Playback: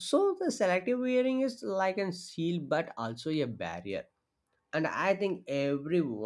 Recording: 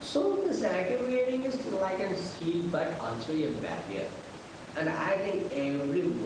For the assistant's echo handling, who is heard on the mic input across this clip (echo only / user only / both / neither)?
echo only